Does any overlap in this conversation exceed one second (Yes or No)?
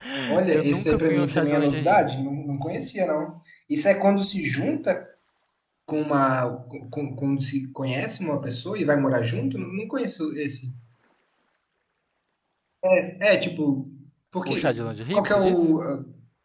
Yes